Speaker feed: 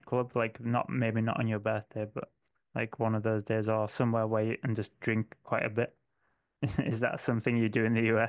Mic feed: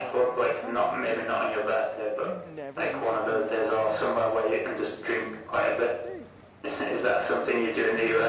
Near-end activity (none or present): present